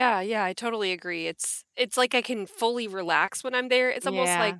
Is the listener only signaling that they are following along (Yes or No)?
Yes